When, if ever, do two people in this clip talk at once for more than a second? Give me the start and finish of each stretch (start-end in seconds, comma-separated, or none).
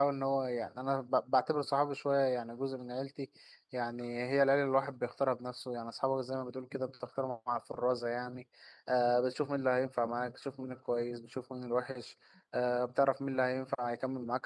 none